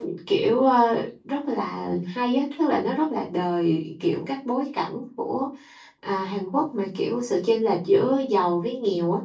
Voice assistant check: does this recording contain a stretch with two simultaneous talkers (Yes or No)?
No